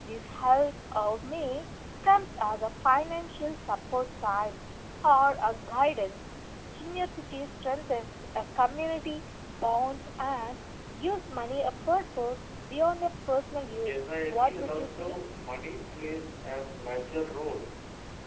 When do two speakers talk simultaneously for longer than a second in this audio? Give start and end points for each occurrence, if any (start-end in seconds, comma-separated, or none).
13.7-15.2